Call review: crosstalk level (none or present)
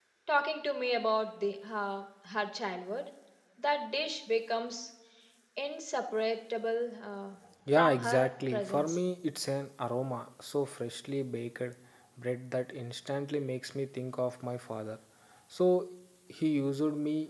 present